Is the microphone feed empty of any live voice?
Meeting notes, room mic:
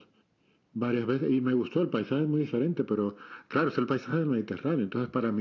Yes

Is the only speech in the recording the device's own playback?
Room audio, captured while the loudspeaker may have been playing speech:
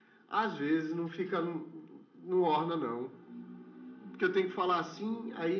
Yes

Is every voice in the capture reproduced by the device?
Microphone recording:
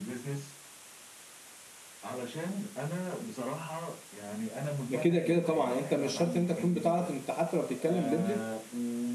No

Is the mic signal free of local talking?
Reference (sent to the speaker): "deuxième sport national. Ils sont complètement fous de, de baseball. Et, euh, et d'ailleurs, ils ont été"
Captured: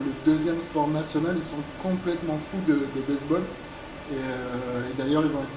Yes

